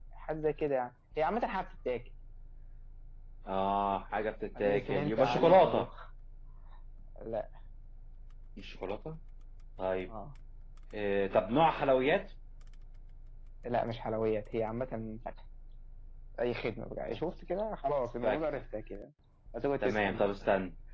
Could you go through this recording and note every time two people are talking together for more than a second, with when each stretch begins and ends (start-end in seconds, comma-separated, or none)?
4.6-5.9